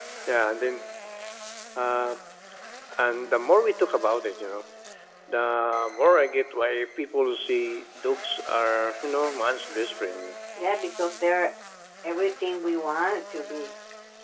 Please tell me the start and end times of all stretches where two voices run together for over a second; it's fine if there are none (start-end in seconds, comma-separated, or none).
none